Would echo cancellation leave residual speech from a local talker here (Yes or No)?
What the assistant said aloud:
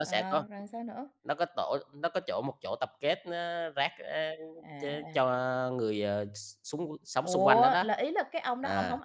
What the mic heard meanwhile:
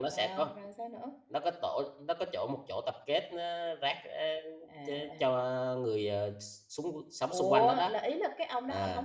No